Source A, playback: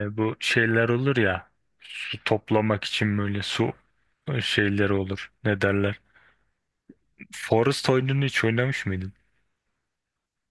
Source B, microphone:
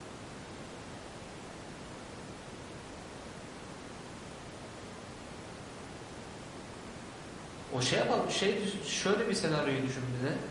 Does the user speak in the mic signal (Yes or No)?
Yes